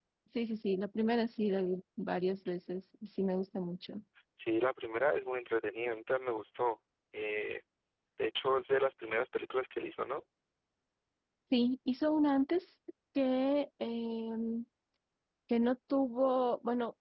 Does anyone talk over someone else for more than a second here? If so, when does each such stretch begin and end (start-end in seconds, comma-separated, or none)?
none